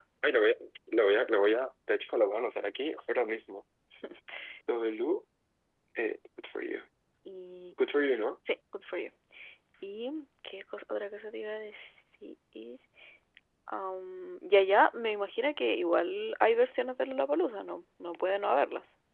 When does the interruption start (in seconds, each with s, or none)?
none